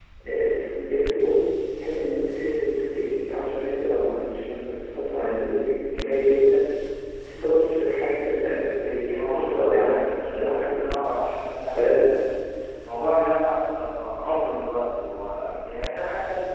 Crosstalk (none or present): present